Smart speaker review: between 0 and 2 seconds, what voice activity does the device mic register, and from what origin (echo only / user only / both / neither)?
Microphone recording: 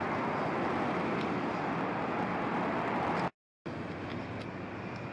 neither